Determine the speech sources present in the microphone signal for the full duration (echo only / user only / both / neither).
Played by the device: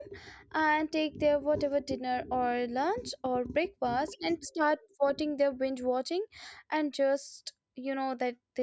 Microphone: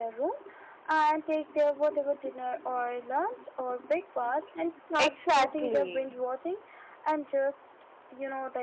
both